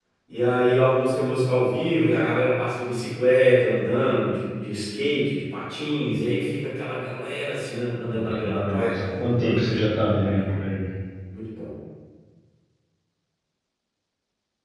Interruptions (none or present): present